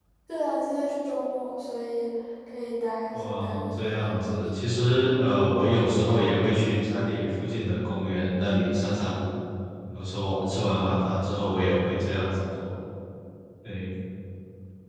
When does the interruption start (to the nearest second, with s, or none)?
3 s